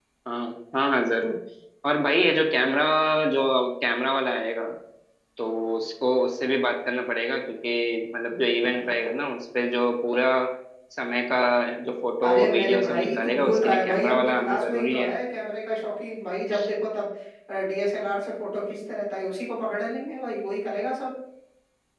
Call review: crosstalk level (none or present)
present